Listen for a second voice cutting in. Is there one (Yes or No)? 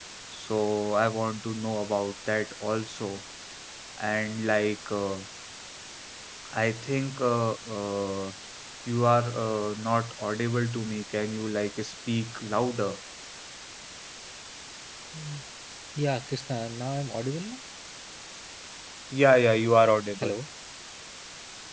No